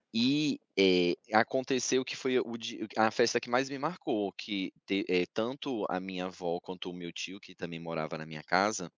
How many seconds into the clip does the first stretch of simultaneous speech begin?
none

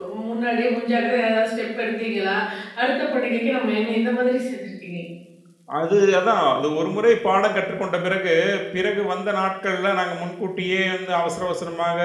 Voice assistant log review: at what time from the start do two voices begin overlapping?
none

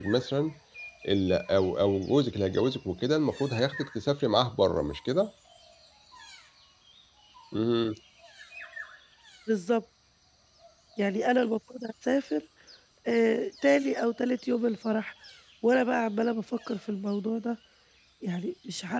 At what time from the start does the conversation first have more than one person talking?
none

